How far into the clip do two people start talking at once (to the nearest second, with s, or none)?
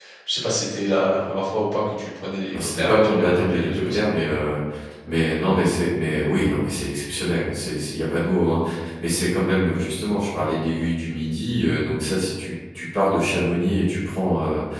3 s